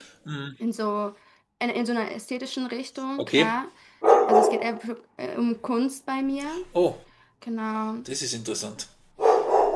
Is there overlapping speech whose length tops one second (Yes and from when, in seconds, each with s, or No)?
No